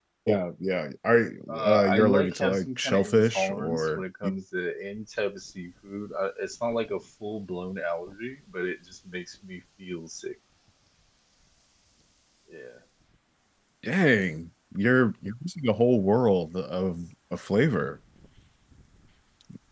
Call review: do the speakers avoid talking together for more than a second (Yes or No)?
No